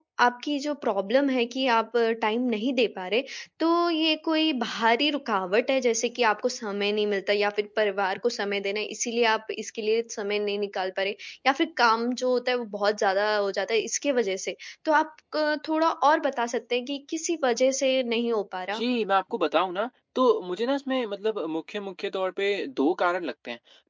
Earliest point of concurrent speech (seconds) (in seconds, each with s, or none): none